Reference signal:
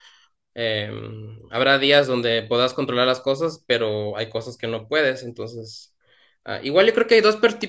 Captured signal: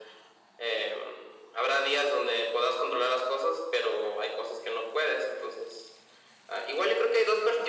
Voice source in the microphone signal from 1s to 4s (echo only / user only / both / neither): echo only